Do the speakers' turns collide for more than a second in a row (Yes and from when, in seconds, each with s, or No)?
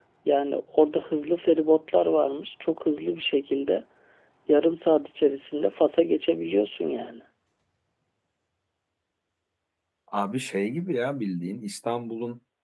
No